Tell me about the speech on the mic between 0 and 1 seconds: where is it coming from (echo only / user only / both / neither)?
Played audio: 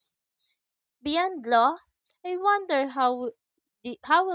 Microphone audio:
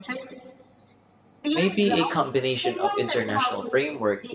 echo only